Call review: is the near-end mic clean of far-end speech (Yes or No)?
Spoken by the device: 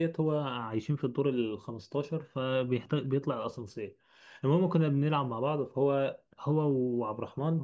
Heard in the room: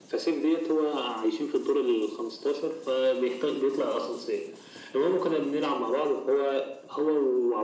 No